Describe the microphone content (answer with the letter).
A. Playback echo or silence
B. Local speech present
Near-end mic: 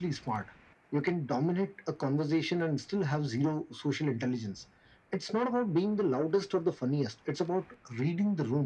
A